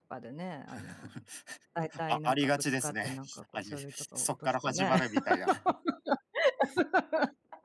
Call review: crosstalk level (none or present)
present